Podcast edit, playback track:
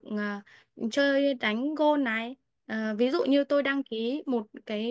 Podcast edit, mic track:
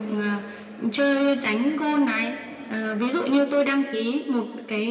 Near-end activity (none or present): none